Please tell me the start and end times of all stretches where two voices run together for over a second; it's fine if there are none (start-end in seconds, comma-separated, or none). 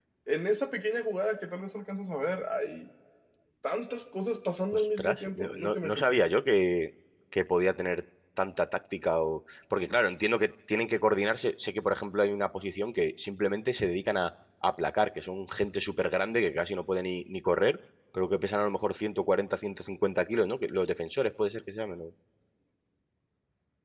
4.7-6.2